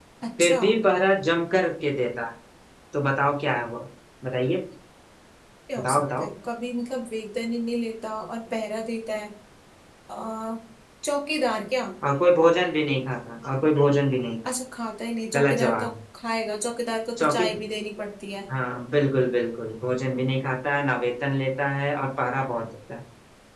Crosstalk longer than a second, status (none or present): none